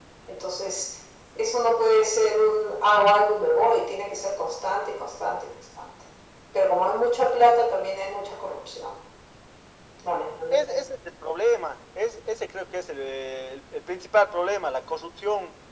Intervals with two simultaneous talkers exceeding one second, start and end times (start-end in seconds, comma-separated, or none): none